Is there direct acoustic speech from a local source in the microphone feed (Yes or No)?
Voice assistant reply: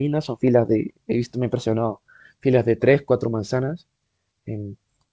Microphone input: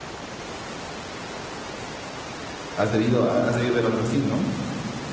Yes